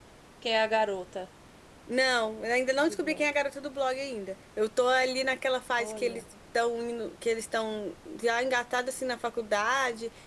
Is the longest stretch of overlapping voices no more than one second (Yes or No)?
Yes